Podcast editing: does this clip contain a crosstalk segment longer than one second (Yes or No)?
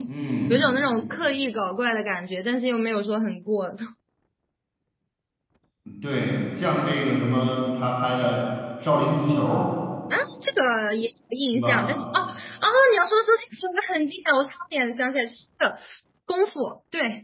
No